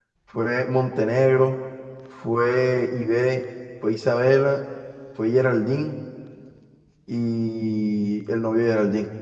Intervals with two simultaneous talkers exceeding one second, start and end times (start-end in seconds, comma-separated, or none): none